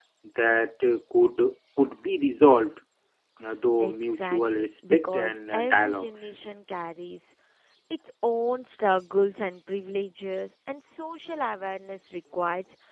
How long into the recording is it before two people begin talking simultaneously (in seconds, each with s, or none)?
3.8 s